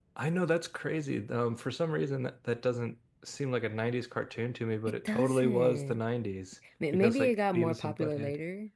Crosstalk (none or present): present